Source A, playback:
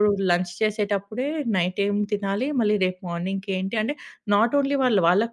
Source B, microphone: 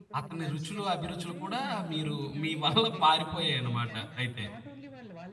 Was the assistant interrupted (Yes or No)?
Yes